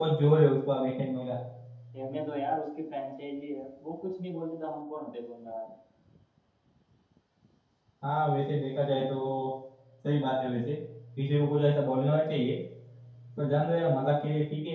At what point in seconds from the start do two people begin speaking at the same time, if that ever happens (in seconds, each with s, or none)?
none